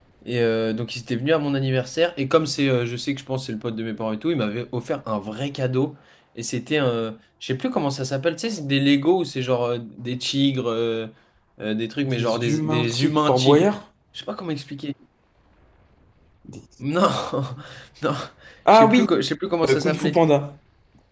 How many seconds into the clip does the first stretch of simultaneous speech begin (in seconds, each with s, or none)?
12.0 s